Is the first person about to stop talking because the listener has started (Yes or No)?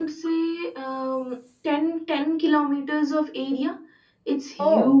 No